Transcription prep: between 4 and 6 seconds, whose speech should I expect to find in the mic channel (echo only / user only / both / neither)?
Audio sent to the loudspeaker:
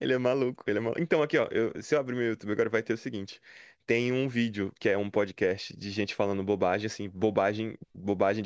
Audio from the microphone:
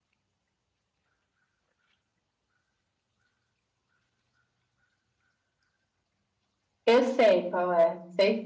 neither